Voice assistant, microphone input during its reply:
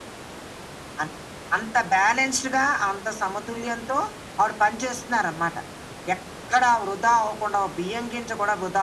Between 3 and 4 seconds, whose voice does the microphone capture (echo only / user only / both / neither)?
echo only